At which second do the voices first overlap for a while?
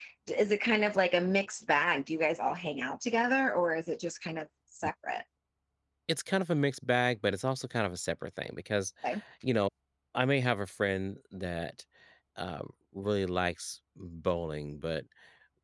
none

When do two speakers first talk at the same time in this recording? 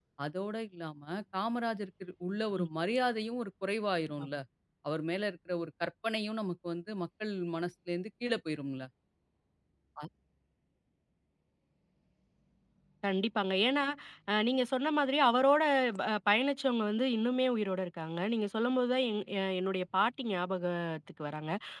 none

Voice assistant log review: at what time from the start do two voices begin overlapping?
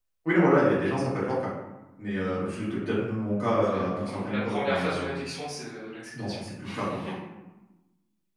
4 s

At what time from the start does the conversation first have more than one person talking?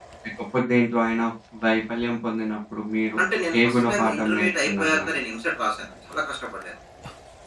4 s

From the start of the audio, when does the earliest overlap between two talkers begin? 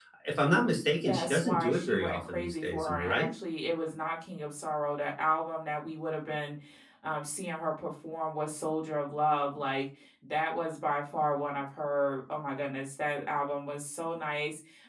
1 s

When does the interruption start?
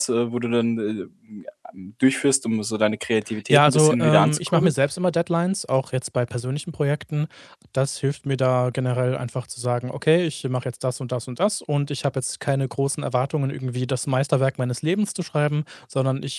4 s

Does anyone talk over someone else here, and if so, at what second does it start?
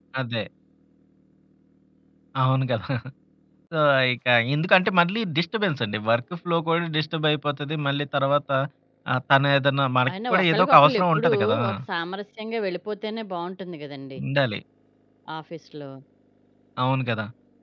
10 s

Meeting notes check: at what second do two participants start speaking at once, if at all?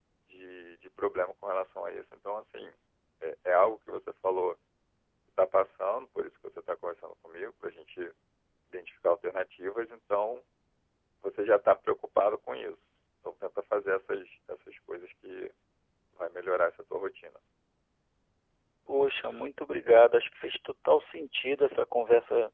none

